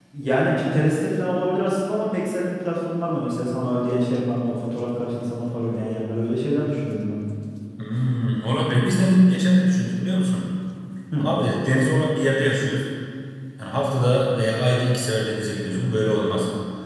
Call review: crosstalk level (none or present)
none